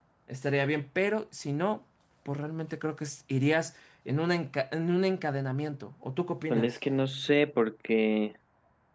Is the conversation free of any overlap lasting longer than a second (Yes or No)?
Yes